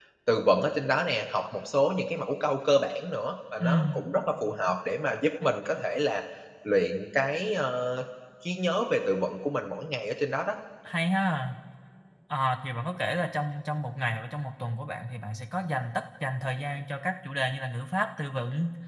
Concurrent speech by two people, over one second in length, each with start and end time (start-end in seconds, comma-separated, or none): none